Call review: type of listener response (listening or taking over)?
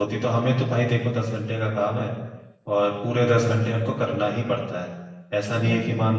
listening